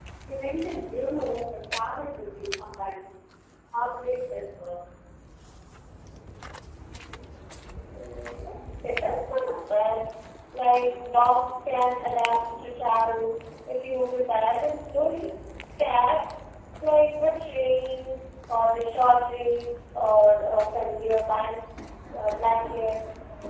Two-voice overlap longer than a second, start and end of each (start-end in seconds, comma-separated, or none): none